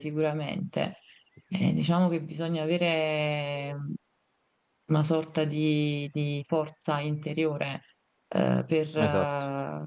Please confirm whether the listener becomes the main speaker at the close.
No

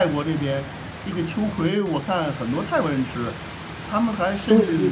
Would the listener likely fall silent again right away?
Yes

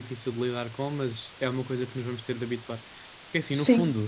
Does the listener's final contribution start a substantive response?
No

